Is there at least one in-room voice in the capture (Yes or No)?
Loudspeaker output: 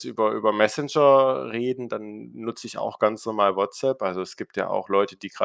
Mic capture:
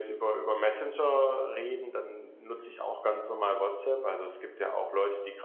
No